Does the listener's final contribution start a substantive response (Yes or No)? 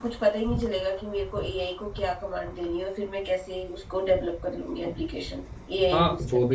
Yes